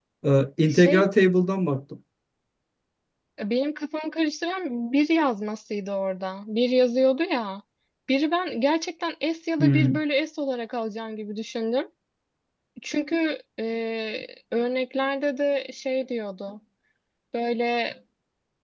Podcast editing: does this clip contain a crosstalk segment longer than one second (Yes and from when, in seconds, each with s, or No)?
No